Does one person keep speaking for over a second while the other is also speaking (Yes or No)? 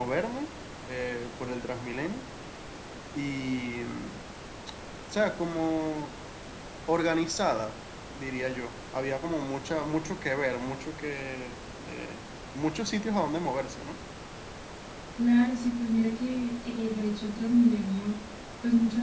No